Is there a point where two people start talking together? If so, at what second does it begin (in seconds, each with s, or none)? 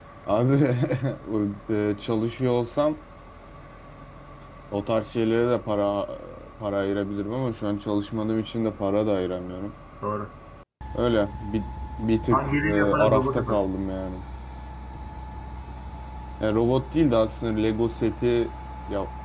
12.3 s